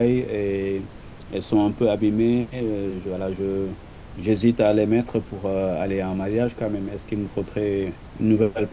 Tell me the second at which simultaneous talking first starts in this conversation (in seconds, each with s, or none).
none